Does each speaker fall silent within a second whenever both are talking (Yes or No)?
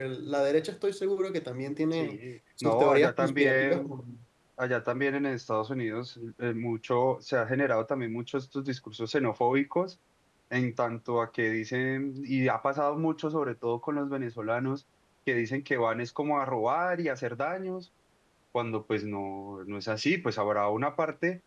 No